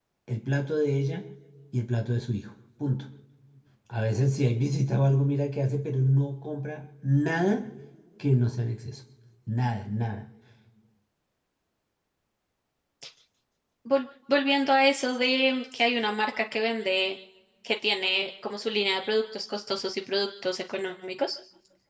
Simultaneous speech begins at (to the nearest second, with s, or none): none